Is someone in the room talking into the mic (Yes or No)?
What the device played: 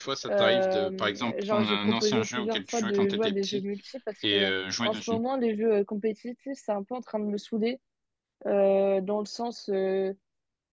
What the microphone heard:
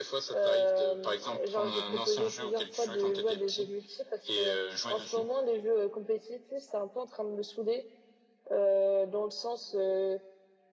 No